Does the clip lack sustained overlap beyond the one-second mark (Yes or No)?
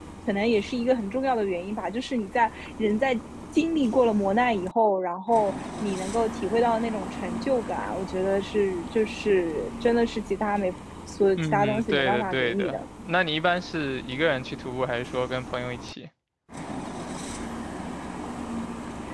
No